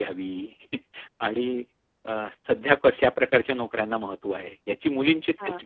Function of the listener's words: listening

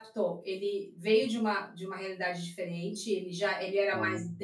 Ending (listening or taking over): listening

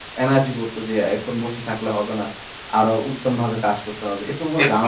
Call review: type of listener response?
taking over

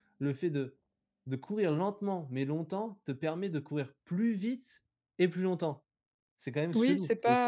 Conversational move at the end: taking over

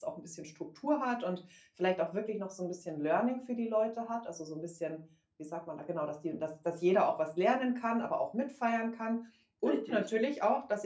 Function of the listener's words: listening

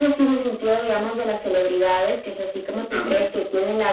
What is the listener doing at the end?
listening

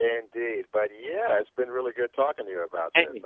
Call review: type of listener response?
taking over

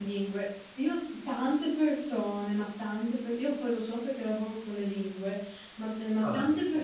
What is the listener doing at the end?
listening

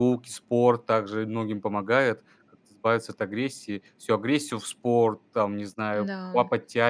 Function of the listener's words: listening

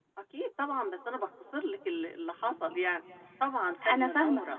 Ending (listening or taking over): taking over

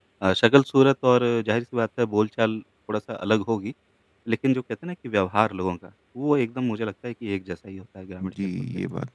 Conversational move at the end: taking over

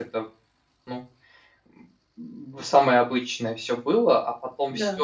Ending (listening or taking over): listening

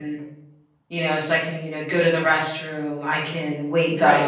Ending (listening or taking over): listening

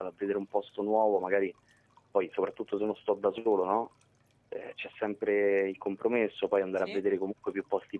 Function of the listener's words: listening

